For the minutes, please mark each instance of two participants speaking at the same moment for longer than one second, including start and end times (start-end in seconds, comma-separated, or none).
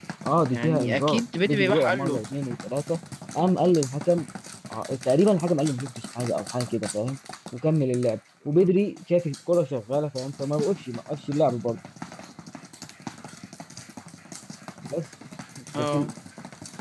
0.5-2.2